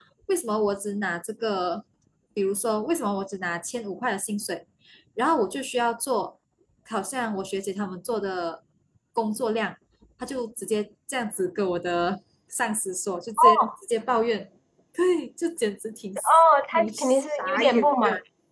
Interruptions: present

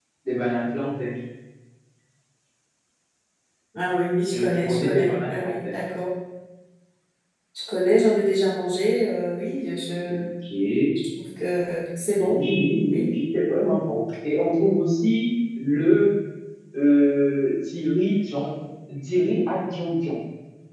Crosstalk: present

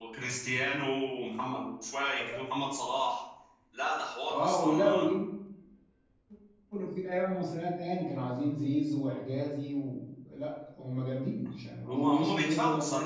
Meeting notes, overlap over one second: present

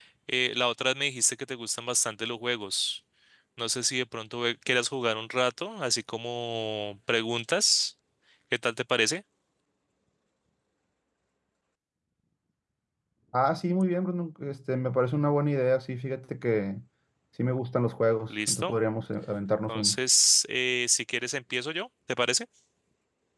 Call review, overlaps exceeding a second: none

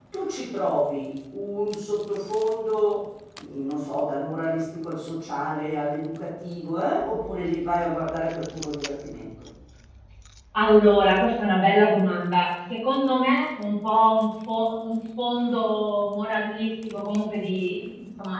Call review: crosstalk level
none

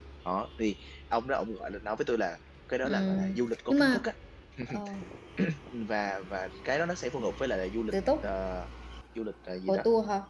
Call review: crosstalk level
present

